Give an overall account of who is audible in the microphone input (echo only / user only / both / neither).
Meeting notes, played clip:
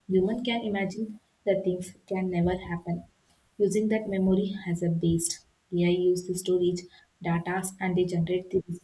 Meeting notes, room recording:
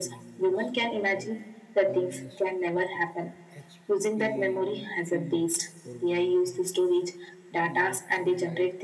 both